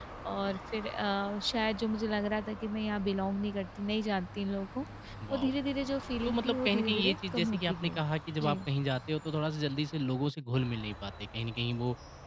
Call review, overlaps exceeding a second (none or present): present